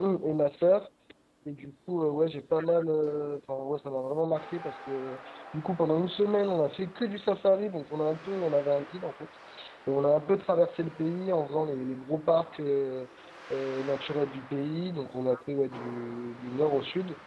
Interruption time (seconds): none

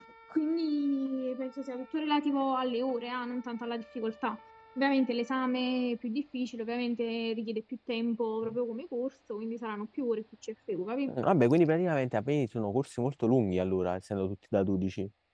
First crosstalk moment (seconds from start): none

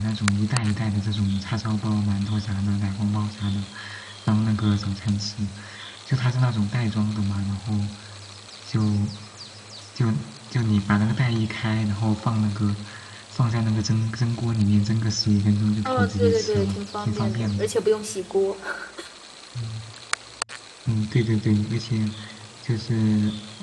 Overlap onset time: 15.8 s

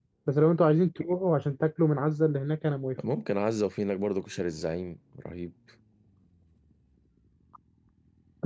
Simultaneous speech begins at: none

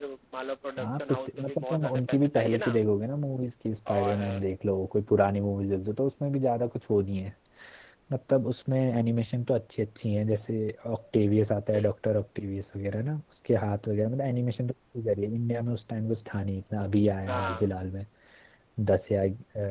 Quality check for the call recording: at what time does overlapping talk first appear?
0.8 s

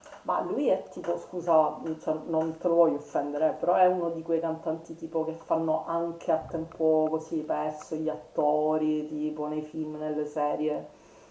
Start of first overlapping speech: none

